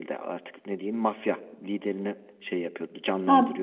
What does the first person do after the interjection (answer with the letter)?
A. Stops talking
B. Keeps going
A